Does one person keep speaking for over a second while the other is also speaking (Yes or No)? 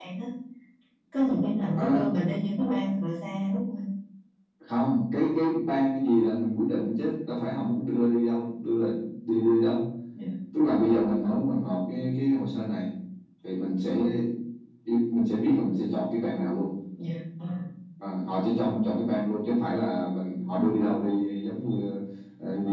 No